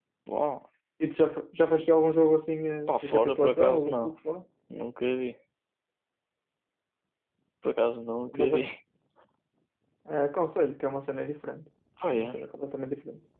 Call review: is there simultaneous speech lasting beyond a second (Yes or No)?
Yes